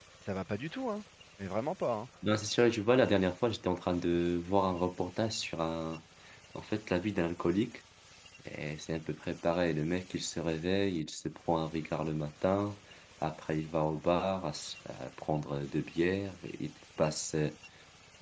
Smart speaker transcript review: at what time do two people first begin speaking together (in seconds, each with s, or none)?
none